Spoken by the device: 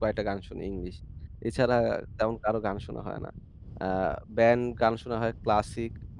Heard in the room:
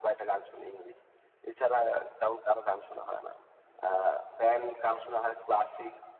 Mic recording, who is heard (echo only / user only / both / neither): echo only